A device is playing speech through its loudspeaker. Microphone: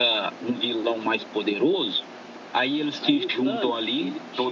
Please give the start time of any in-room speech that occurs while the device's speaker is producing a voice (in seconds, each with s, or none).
3.0 s